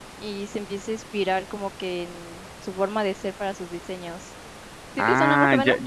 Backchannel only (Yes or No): No